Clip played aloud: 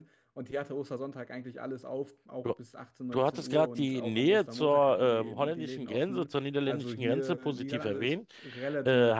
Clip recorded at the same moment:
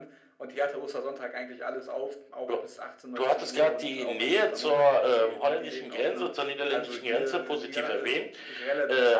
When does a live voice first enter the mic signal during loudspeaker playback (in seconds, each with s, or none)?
none